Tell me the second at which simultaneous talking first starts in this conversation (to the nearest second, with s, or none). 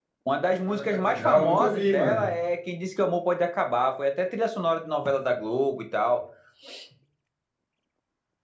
1 s